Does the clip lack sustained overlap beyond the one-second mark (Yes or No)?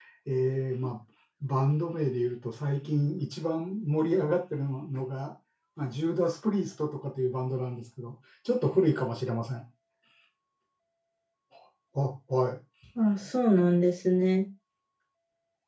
Yes